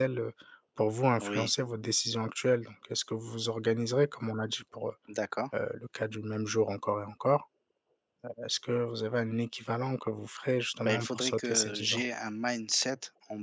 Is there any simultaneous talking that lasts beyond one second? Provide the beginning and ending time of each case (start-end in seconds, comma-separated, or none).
10.8-12.0